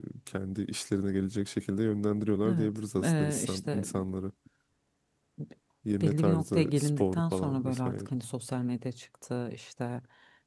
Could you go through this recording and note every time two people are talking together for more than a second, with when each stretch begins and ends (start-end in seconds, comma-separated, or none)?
2.5-3.9, 6.0-8.1